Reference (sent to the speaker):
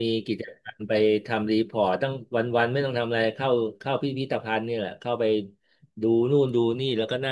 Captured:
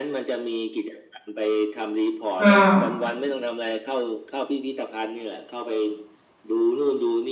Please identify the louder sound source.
user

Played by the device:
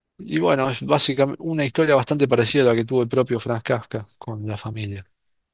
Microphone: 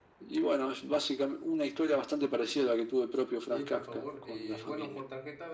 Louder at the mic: echo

